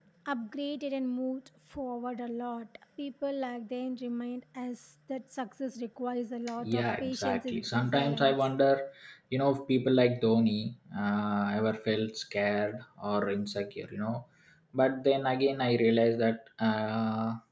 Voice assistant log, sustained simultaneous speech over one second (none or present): present